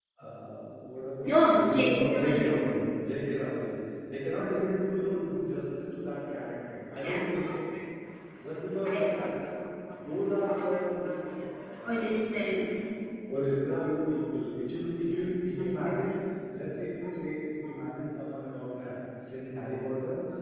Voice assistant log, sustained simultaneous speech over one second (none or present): present